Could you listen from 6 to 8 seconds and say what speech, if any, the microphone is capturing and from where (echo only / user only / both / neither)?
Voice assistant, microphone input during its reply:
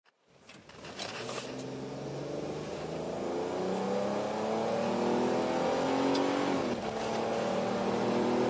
neither